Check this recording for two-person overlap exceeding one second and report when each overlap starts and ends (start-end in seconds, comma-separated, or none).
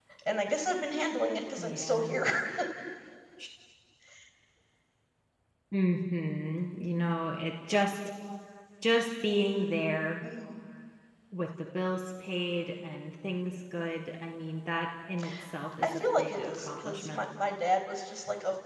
15.8-17.2